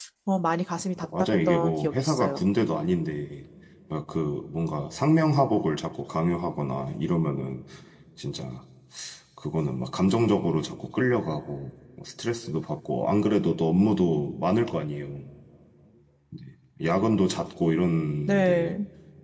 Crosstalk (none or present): present